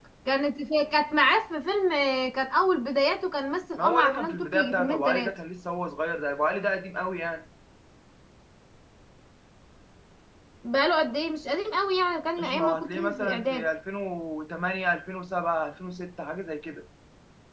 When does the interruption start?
3.8 s

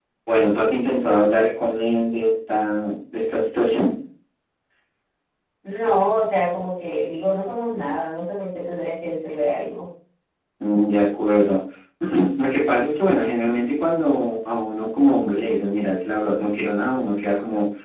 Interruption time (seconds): none

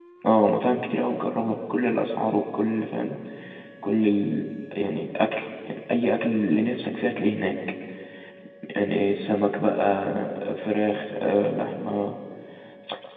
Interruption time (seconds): none

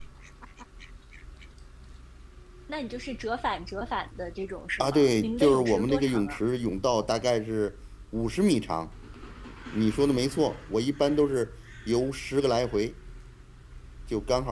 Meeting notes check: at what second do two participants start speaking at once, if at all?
4.8 s

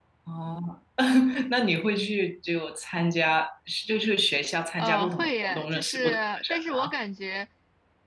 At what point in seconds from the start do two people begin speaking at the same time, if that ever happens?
4.8 s

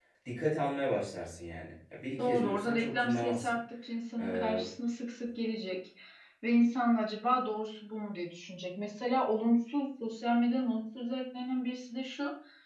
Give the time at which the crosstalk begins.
2.2 s

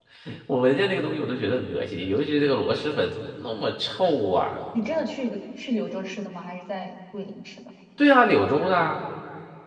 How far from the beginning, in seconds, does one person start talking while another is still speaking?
none

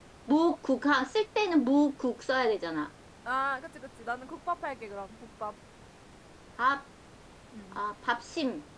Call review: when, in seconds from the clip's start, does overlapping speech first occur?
none

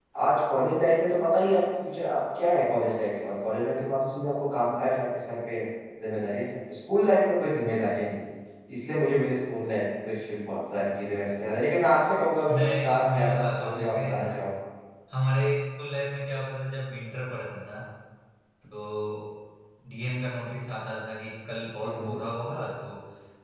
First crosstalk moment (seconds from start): 12.6 s

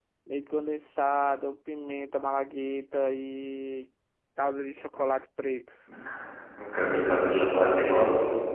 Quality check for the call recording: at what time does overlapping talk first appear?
none

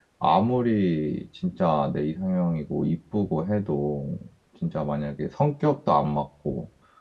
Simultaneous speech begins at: none

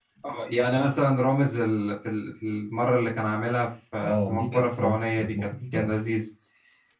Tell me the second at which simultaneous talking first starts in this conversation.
4.0 s

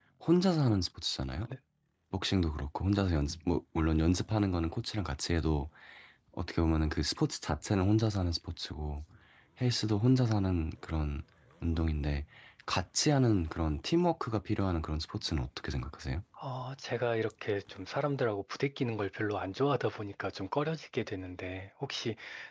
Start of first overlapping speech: none

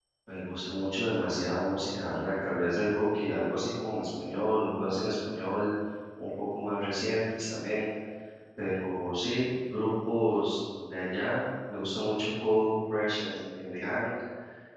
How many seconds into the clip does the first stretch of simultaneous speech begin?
none

